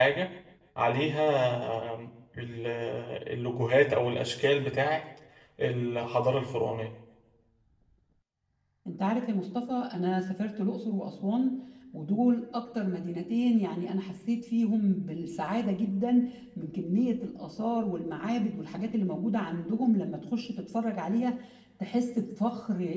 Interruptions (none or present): none